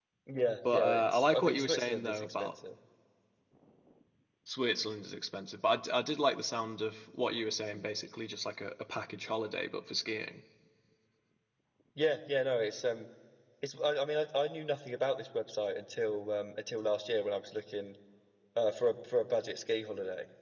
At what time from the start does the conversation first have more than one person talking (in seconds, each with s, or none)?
0.7 s